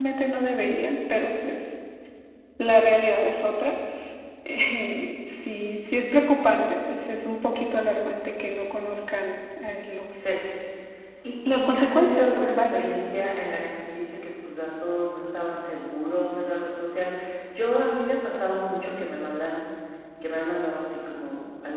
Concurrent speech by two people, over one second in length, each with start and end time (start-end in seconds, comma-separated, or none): 11.5-12.8